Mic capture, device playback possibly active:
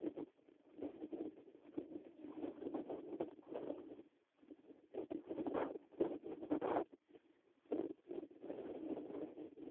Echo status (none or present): none